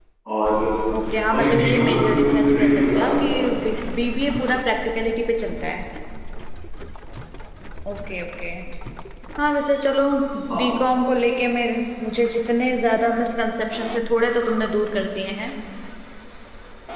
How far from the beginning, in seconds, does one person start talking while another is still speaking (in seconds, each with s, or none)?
1.3 s